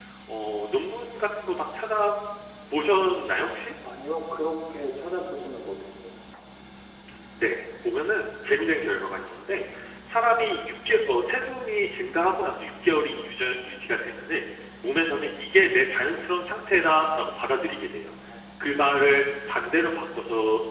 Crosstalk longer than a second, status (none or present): none